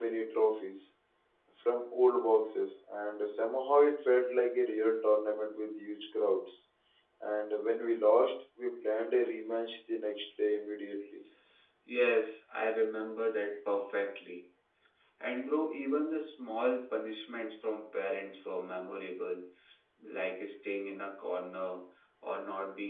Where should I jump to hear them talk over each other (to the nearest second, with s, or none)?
none